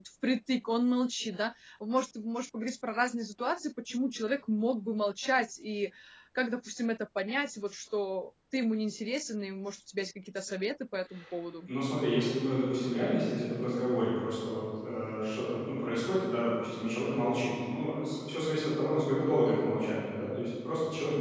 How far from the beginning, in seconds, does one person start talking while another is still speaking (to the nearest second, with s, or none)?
none